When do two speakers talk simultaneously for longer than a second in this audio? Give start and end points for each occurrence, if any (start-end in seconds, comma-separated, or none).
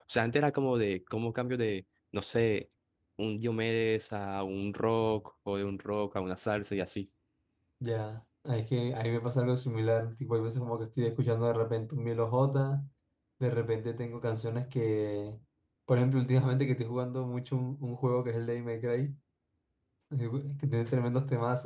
none